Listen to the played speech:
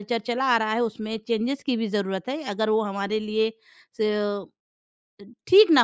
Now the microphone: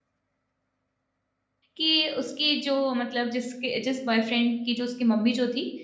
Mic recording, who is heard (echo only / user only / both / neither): user only